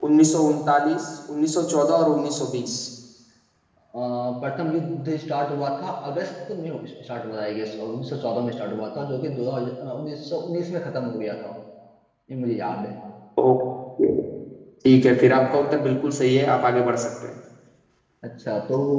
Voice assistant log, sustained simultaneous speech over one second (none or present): none